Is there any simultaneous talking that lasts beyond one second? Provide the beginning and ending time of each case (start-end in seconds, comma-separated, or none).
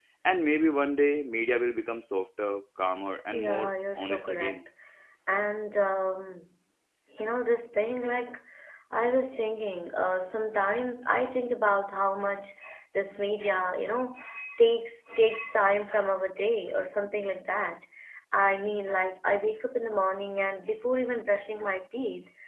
3.3-4.6